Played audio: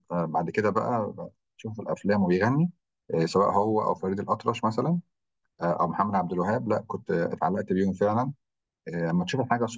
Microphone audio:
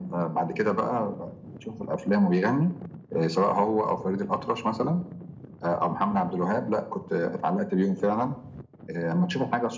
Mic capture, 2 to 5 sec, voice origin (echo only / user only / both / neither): echo only